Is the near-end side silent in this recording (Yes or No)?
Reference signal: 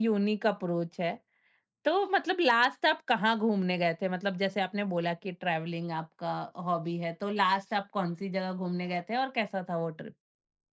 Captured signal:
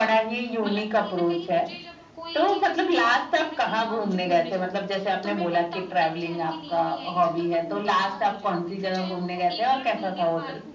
No